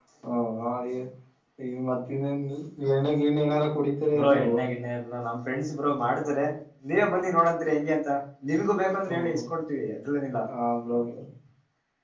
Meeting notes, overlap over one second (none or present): none